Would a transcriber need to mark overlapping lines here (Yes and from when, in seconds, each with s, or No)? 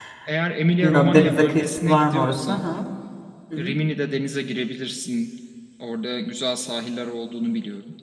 Yes, from 0.8 s